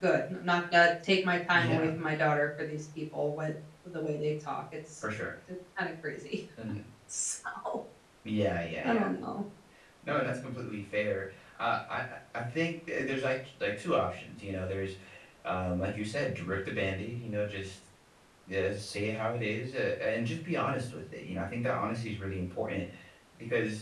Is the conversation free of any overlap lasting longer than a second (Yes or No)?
Yes